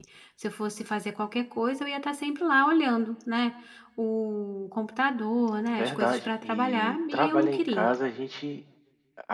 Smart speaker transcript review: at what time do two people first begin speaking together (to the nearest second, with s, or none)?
6 s